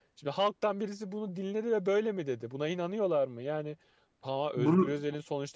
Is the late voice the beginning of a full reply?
No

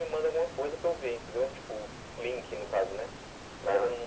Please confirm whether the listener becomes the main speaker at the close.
No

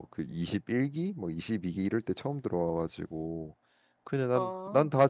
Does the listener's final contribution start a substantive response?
No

